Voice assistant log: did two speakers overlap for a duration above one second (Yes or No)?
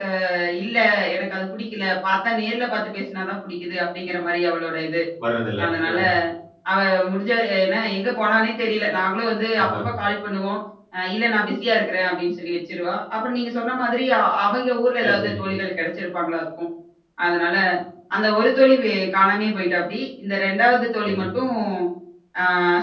No